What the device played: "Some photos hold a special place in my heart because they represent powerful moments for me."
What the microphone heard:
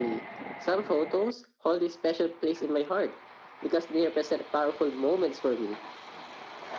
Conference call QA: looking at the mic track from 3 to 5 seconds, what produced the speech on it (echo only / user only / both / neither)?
echo only